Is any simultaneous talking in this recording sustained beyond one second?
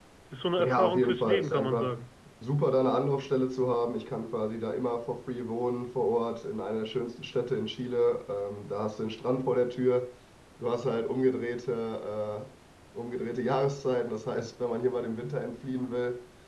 Yes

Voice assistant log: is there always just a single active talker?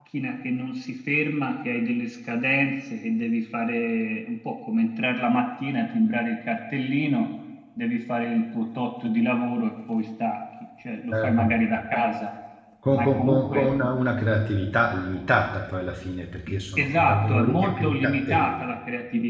No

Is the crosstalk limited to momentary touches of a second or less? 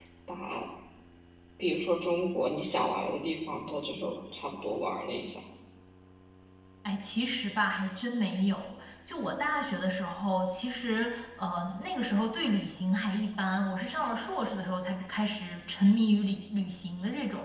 Yes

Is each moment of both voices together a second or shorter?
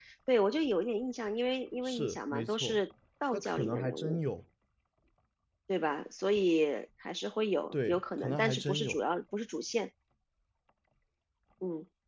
No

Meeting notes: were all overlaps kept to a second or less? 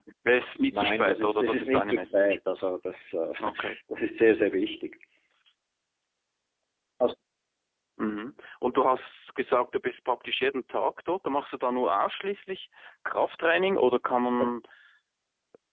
No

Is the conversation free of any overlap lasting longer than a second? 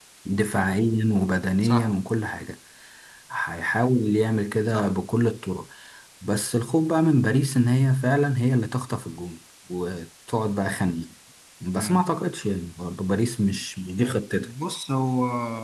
Yes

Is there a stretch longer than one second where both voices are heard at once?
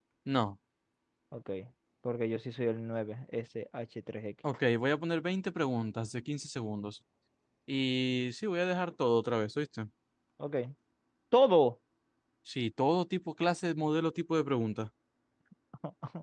No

